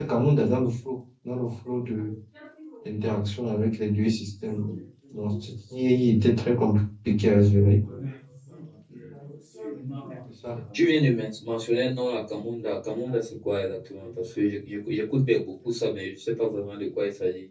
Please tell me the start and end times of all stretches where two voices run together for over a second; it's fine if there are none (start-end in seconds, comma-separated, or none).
none